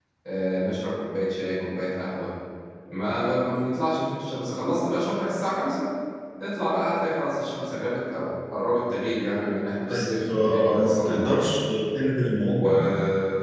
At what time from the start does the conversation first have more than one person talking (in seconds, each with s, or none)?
9.9 s